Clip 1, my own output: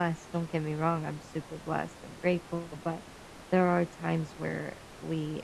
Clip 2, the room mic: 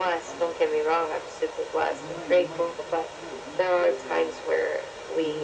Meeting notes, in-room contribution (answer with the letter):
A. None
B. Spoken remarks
B